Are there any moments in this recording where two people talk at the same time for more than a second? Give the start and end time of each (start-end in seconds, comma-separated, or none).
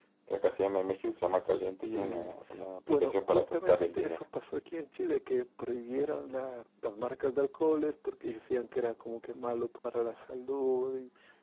2.9-4.2